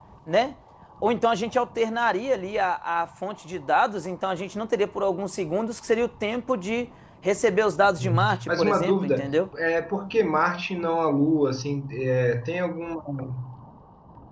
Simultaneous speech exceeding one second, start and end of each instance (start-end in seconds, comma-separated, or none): 8.0-9.5